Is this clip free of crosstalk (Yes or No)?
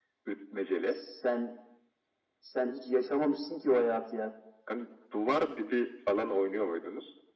Yes